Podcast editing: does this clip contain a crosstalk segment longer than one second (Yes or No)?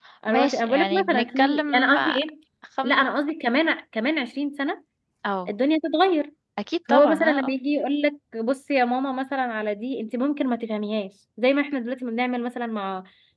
Yes